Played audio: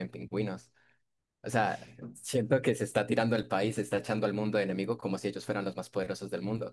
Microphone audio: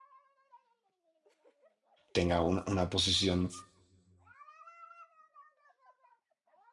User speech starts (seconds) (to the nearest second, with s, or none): 2 s